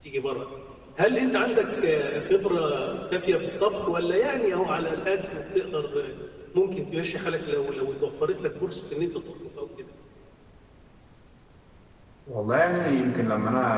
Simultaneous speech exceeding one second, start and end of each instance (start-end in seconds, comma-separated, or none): none